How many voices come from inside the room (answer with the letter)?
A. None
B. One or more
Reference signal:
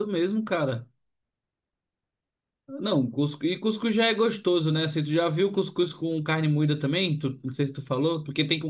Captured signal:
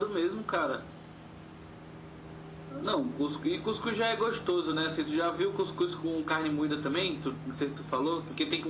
A